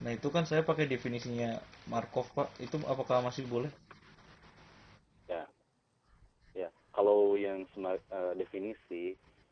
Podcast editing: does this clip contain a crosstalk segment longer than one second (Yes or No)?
No